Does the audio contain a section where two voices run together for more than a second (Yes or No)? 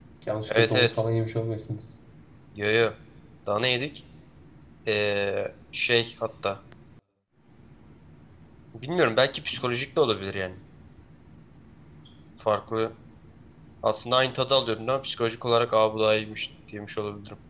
No